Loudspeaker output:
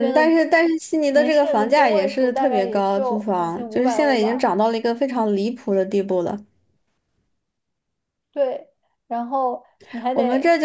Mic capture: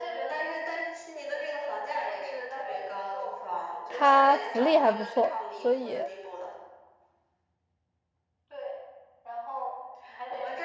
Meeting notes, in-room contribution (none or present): present